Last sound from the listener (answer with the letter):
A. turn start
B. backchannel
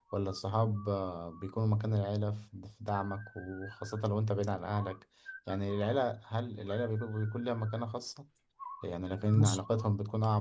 B